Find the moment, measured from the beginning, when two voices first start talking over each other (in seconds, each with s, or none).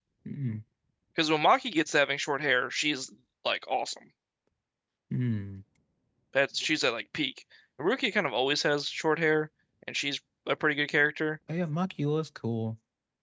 none